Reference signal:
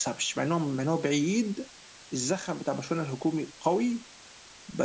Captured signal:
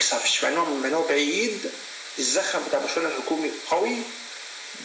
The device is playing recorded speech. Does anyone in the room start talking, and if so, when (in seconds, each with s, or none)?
none